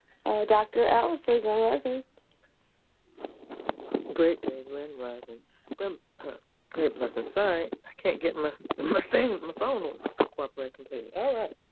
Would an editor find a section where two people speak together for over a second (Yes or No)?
No